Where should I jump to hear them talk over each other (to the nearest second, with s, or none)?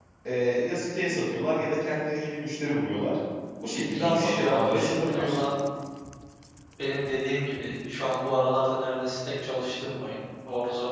4 s